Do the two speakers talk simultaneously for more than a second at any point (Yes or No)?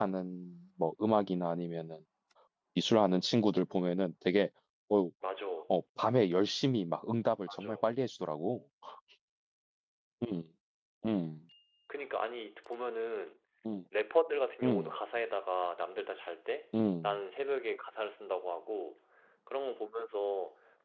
No